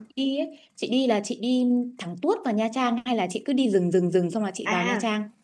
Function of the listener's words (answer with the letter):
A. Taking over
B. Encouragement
A